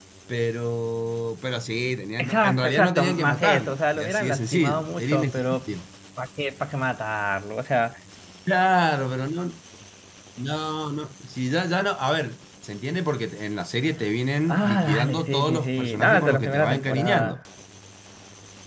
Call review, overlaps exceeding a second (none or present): present